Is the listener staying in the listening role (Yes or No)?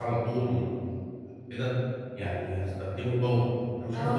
No